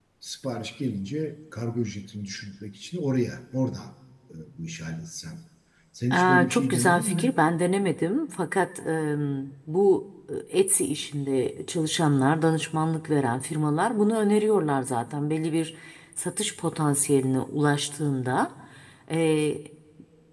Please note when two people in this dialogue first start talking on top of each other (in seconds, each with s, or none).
6.1 s